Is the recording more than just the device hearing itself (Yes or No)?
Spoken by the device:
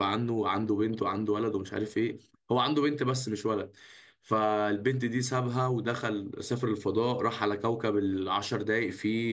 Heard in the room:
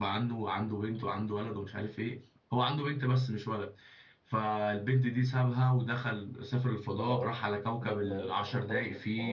Yes